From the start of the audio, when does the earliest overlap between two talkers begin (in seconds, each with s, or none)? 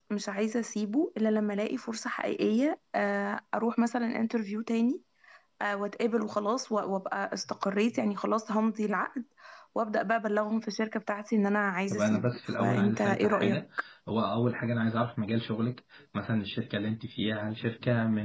11.9 s